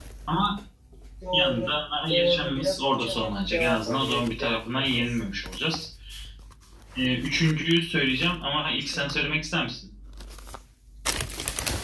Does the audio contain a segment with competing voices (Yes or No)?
Yes